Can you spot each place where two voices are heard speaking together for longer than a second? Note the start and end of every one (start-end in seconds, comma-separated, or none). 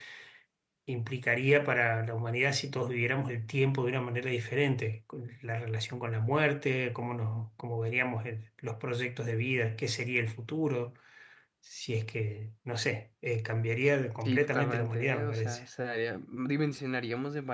14.2-15.6